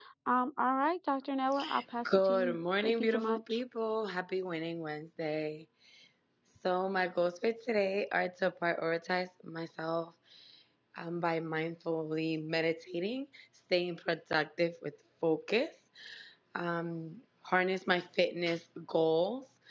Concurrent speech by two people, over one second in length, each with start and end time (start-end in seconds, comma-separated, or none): 2.1-3.6